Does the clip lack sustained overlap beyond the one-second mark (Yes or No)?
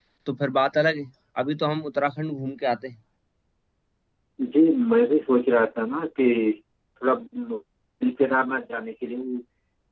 Yes